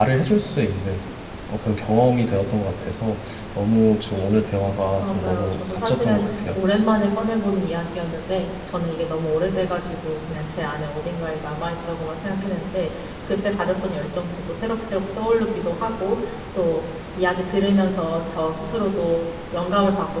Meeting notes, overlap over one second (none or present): present